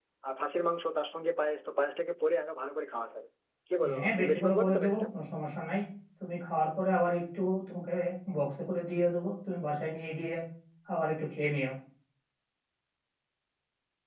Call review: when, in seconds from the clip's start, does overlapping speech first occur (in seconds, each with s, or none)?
3.8 s